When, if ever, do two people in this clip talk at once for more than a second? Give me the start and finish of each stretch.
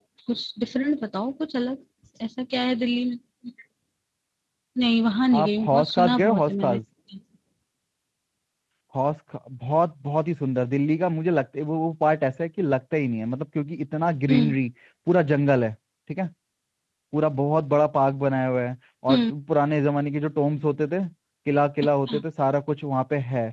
5.4-6.8

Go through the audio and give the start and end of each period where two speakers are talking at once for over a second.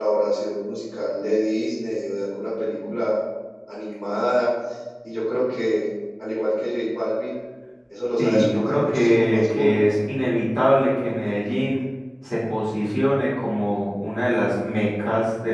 8.2-9.8

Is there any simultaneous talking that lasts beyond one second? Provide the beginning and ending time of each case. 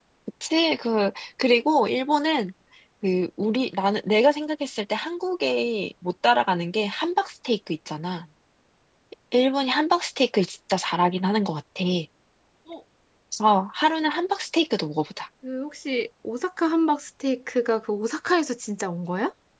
none

